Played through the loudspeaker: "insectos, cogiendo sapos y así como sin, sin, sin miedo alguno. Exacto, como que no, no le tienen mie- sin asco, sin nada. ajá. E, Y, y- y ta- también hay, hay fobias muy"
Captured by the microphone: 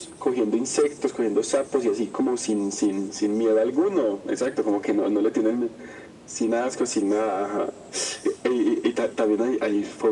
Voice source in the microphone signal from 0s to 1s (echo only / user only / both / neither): echo only